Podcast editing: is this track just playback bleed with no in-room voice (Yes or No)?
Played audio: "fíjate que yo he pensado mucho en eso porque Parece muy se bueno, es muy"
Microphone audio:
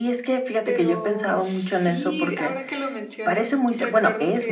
No